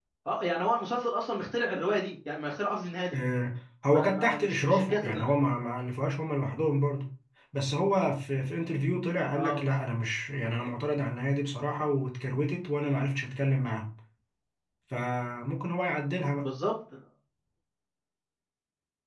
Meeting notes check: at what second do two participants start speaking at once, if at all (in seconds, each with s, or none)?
3.9 s